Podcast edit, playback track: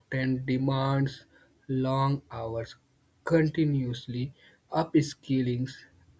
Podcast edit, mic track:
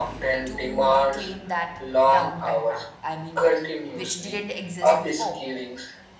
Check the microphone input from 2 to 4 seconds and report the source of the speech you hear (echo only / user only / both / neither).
both